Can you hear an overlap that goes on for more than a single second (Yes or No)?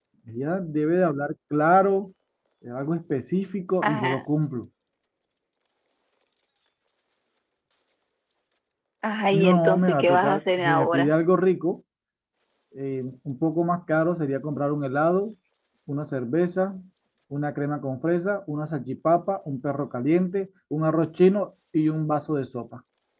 Yes